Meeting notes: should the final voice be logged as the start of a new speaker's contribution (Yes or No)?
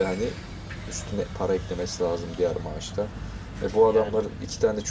No